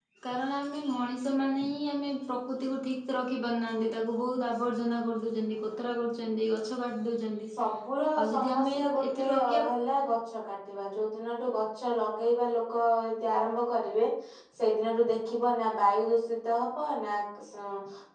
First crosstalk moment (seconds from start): 8.2 s

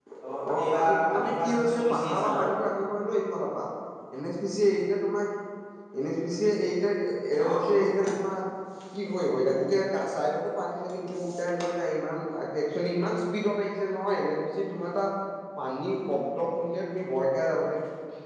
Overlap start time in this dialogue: 0.5 s

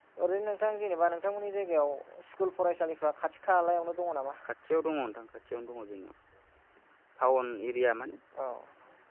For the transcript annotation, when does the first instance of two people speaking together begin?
none

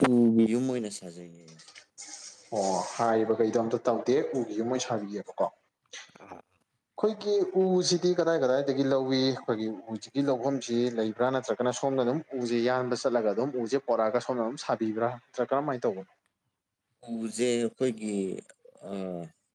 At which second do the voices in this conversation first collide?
none

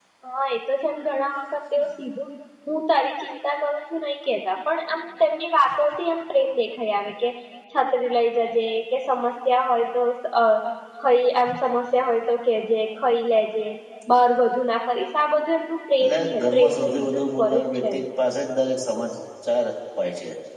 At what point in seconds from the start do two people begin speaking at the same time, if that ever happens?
16.0 s

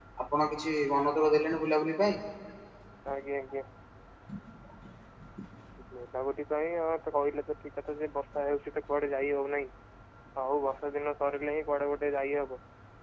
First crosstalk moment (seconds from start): none

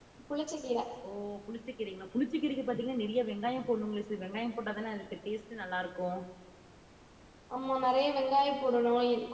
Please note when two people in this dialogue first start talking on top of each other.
none

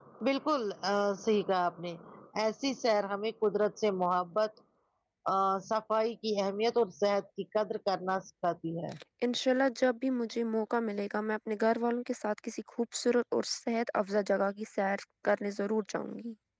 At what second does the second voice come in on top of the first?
none

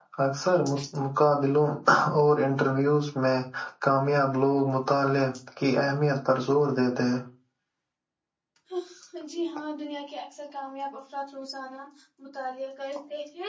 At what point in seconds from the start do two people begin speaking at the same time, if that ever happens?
none

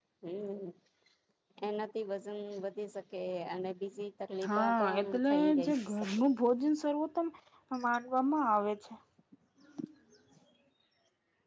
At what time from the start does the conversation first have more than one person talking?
4.4 s

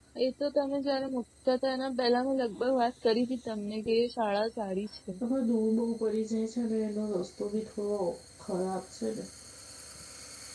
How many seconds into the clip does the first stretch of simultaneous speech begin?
none

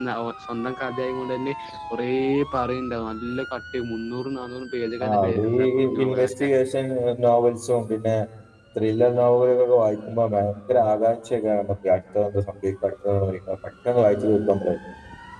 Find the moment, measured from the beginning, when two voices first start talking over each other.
5.0 s

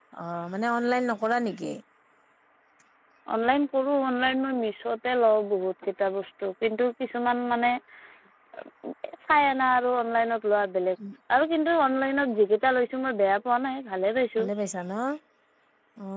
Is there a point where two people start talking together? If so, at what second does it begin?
none

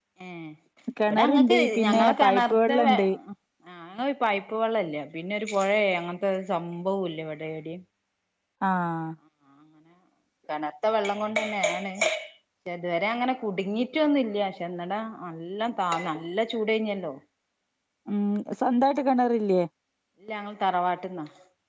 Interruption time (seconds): 1.1 s

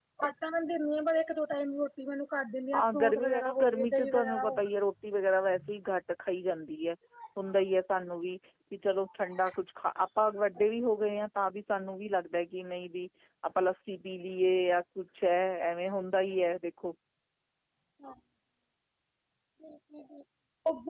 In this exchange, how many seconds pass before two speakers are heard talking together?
2.8 s

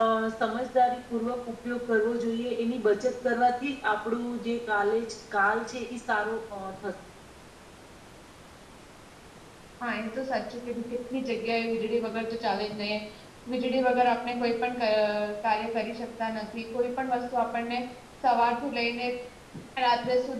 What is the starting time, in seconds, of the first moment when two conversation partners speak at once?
none

